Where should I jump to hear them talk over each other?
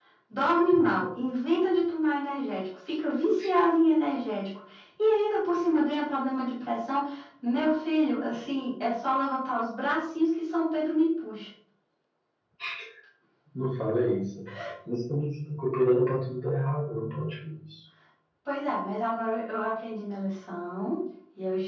none

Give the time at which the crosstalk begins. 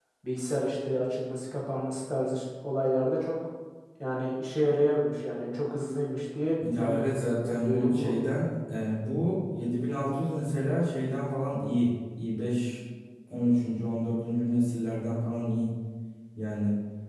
7 s

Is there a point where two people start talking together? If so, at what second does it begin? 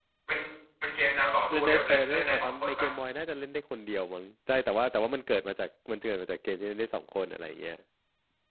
1 s

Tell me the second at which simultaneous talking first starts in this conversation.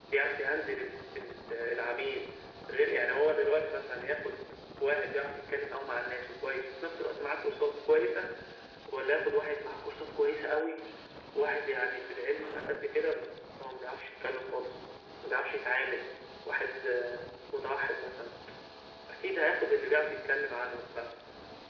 none

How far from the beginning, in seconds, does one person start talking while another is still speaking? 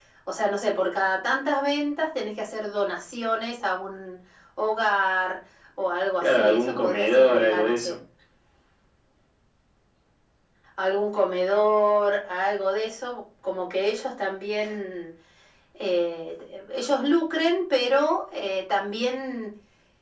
6 s

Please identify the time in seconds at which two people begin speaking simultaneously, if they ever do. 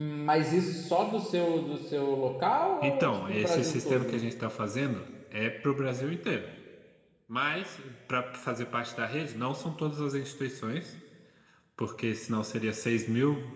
3 s

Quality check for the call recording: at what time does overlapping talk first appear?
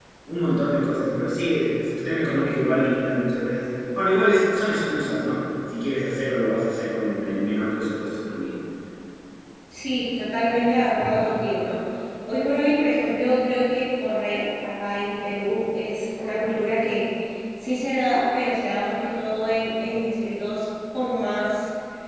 none

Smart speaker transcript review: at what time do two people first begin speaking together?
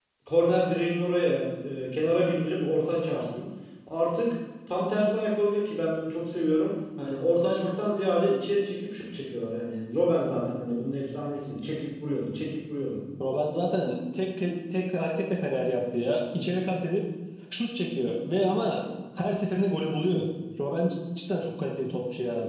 none

